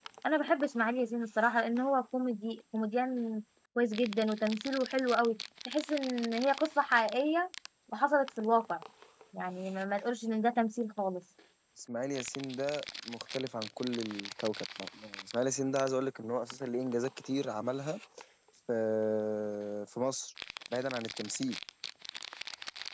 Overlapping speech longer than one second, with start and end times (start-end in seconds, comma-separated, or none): none